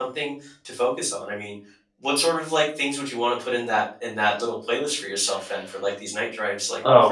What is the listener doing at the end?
taking over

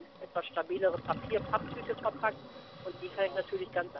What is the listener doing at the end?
listening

